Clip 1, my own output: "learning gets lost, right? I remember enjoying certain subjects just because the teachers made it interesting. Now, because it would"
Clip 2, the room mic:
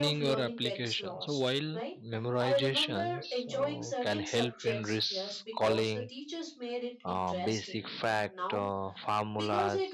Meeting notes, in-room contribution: present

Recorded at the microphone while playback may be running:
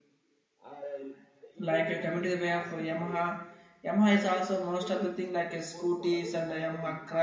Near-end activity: present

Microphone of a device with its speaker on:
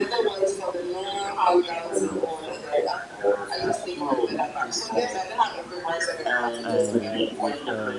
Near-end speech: present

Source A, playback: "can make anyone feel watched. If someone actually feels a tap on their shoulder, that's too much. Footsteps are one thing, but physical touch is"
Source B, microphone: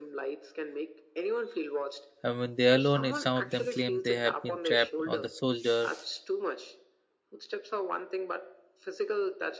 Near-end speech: present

